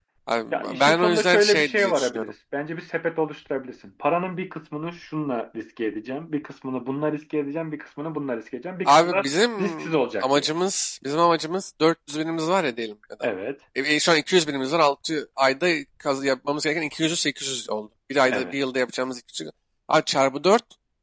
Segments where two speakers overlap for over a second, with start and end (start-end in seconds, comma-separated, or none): 0.5-2.3